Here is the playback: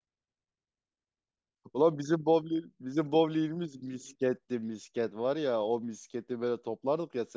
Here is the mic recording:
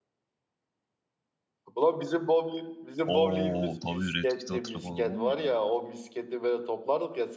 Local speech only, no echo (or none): Oo tabii Red Kit'i hatırlamadan olmuyor ya.